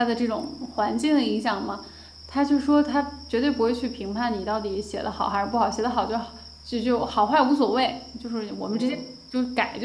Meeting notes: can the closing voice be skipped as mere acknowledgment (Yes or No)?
Yes